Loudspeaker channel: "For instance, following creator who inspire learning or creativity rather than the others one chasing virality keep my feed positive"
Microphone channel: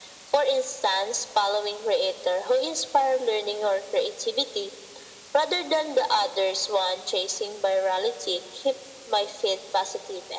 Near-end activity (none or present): none